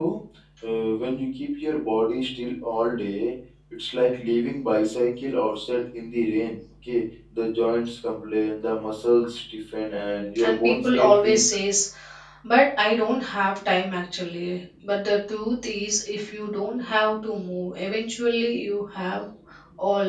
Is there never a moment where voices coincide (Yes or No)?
No